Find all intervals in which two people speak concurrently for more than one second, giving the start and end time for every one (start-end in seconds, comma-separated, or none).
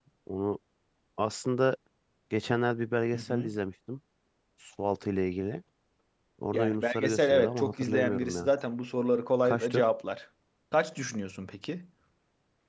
6.5-8.5